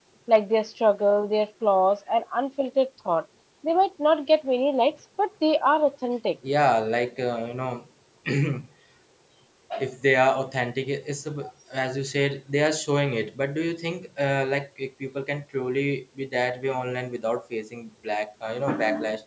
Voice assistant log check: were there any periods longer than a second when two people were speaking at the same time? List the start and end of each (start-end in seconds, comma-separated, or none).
none